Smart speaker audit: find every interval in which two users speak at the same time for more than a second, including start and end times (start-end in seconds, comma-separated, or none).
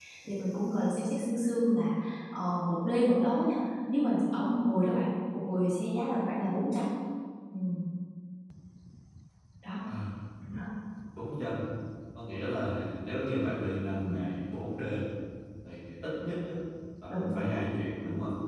none